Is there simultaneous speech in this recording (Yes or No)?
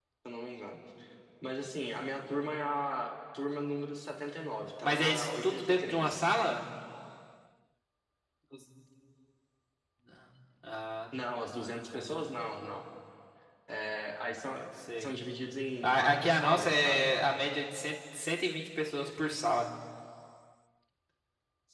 Yes